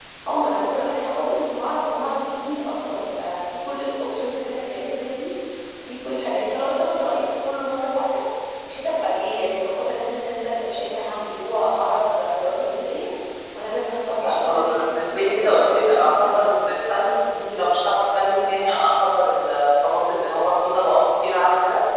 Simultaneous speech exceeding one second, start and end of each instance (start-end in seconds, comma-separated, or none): 14.2-16.5